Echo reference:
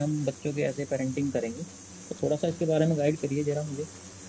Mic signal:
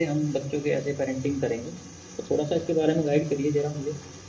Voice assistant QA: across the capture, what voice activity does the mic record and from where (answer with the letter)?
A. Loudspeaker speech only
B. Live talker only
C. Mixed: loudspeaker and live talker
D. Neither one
A